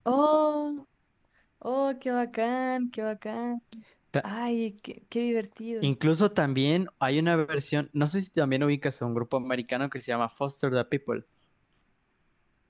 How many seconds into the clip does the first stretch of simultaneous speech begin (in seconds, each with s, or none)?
none